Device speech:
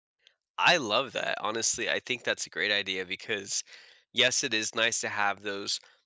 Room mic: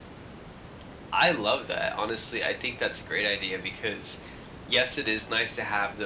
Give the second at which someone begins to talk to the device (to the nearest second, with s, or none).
none